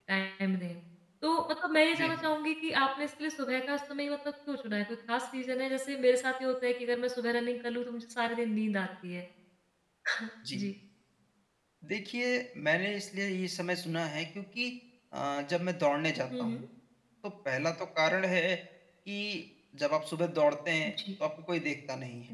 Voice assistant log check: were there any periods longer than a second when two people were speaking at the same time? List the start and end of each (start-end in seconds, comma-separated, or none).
none